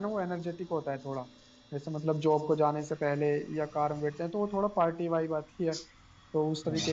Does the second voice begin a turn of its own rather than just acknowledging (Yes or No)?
Yes